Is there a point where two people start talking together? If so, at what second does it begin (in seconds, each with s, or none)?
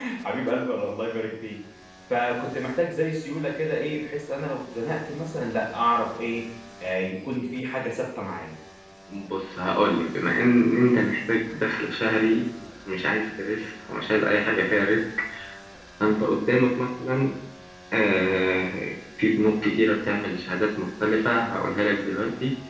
none